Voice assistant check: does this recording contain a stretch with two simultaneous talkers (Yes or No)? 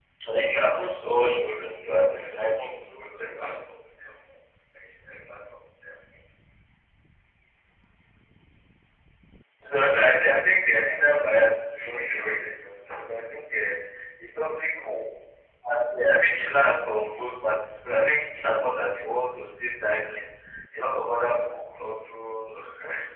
Yes